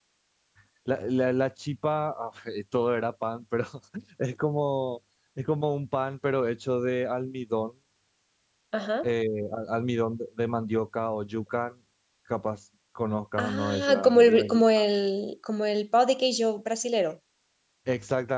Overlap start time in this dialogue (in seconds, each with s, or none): 13.4 s